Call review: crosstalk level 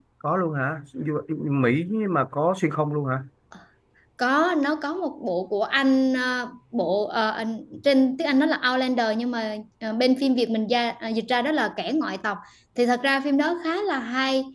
none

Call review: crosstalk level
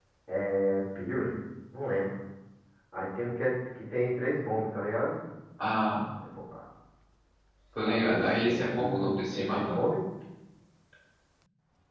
present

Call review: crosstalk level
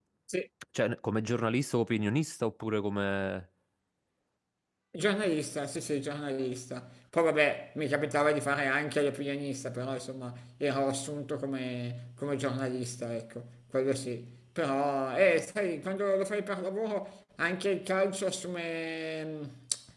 none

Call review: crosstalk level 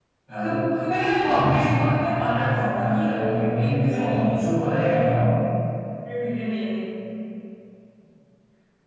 present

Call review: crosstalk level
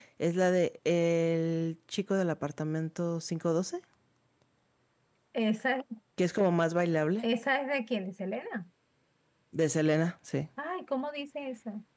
none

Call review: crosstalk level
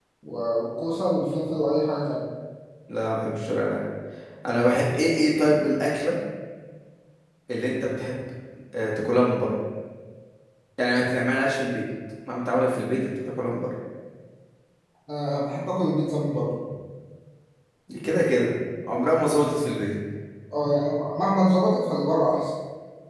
none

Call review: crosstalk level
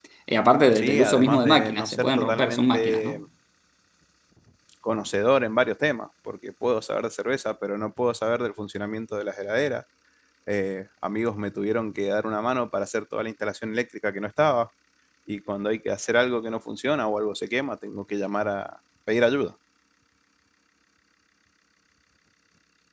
present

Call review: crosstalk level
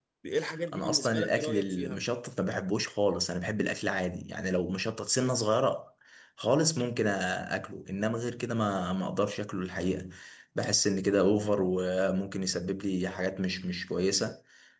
present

